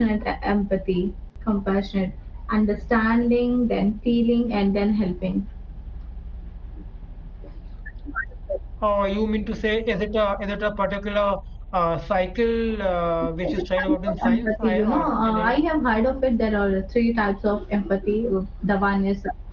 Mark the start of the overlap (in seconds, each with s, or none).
13.4 s